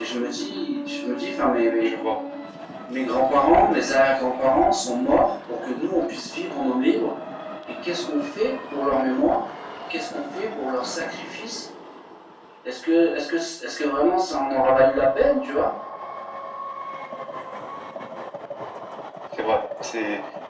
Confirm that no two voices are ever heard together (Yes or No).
Yes